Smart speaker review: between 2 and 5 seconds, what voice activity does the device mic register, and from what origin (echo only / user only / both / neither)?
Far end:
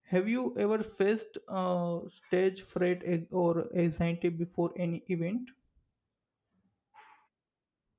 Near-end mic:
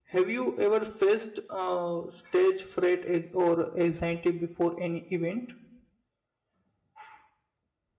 echo only